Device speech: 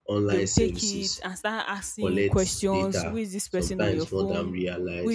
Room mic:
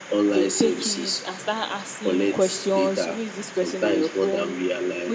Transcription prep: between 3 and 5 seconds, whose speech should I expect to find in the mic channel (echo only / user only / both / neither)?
echo only